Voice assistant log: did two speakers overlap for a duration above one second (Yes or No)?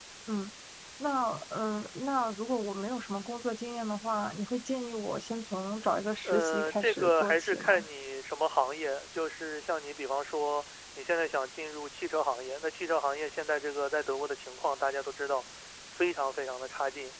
Yes